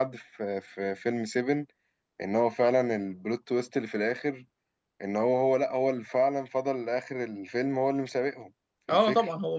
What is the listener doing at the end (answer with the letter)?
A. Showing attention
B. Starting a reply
B